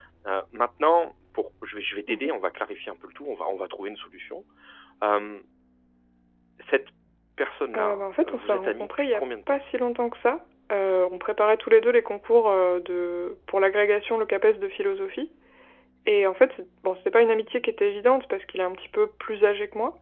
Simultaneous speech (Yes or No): Yes